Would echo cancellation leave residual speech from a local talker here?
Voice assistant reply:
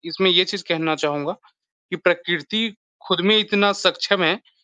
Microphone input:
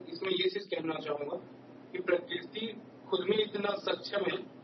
No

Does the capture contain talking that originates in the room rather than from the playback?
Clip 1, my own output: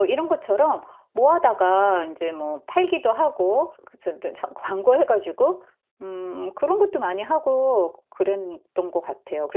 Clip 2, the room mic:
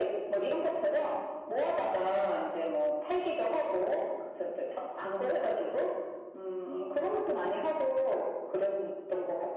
No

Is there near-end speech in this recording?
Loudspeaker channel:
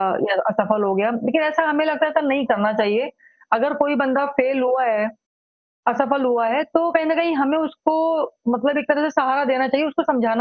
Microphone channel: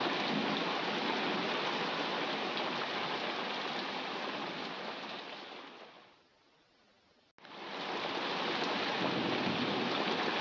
No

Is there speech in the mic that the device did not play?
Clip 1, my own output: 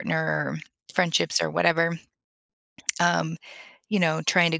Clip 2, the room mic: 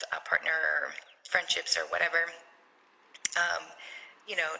No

